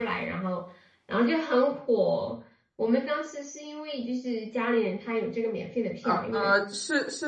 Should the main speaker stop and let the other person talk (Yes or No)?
Yes